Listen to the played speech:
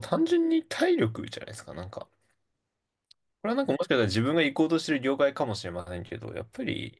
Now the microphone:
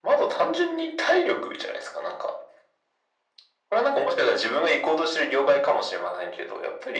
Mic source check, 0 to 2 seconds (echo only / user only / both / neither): echo only